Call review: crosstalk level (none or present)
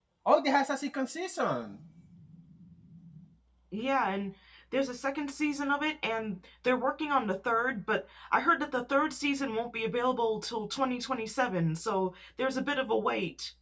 none